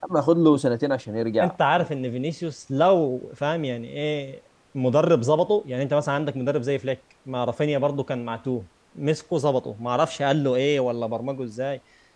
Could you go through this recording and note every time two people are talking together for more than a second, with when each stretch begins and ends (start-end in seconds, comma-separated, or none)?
none